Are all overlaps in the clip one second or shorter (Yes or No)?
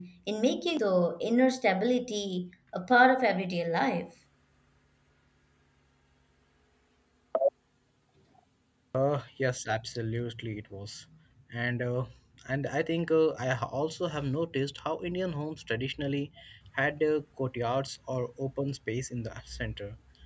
Yes